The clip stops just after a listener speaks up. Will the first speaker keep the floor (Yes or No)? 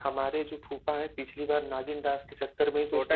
No